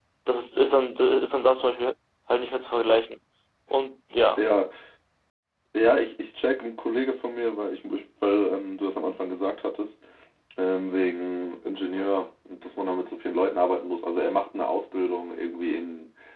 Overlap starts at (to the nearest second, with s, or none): none